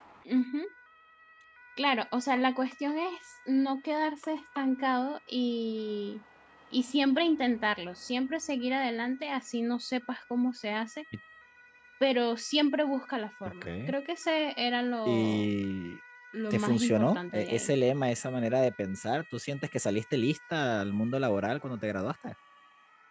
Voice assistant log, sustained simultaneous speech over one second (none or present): present